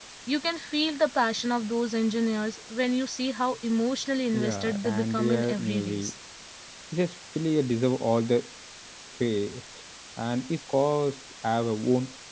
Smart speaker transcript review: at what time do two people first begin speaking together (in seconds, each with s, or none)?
4.3 s